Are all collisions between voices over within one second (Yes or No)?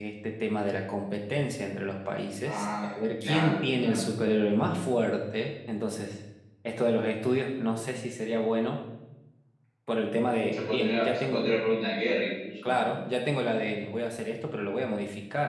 No